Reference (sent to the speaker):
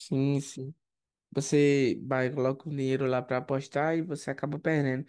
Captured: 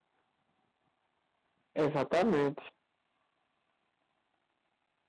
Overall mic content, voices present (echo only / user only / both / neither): user only